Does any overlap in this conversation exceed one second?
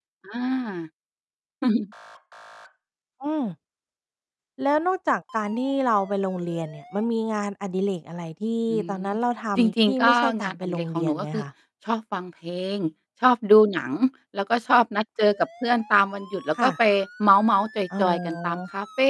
Yes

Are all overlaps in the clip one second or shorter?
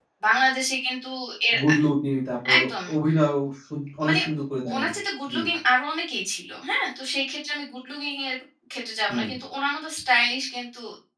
Yes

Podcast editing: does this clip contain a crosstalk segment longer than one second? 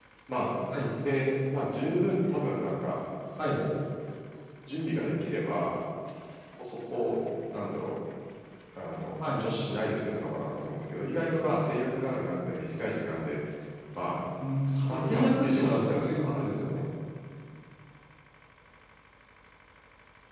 Yes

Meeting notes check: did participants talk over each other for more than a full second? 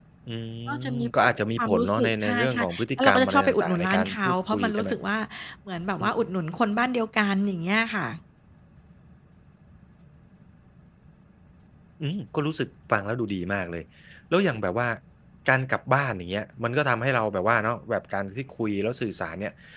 Yes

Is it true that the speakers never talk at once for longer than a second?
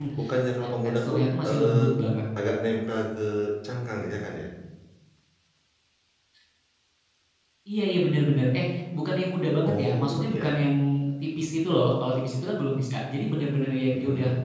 No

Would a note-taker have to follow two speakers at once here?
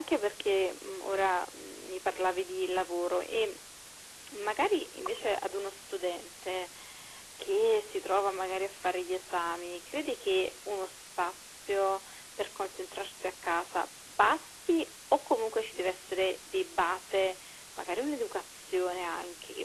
No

